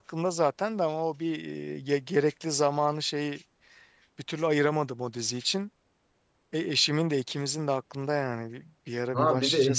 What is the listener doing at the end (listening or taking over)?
taking over